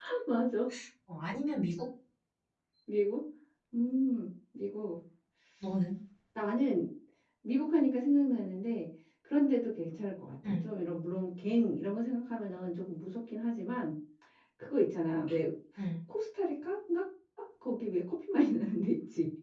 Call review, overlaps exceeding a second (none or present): none